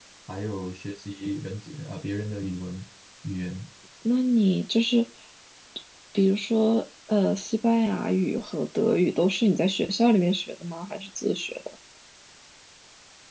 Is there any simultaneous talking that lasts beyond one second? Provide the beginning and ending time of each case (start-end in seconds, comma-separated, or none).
none